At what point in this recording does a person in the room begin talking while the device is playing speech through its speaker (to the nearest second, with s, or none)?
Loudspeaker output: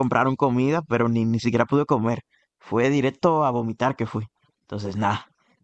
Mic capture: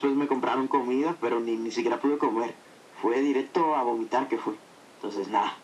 none